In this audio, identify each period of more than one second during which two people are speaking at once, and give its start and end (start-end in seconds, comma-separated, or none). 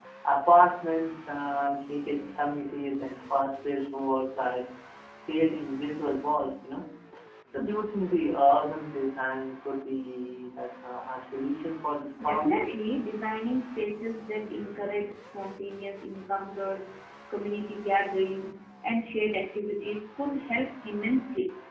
none